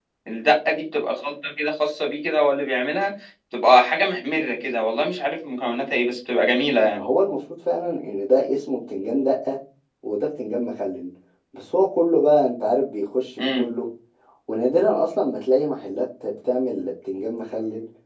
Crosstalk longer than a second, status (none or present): none